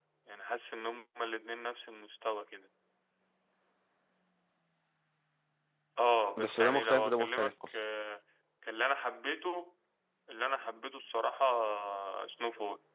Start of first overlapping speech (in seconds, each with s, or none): 6.4 s